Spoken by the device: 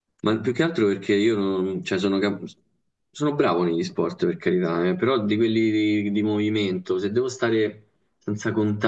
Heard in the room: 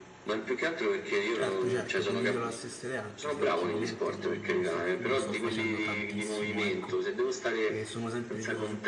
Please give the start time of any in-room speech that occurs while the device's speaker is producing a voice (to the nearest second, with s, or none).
1 s